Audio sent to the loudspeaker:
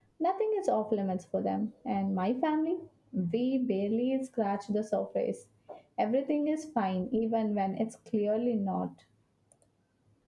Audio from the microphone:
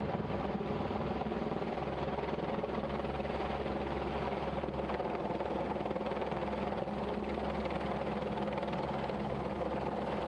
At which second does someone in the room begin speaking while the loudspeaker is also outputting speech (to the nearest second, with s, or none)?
none